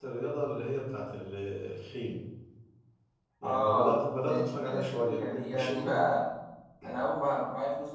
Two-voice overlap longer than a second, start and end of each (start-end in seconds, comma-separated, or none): 3.4-6.0